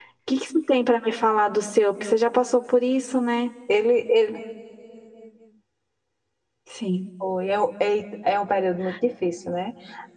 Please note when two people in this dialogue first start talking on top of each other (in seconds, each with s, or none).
none